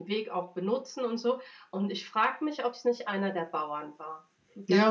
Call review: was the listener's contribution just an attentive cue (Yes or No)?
No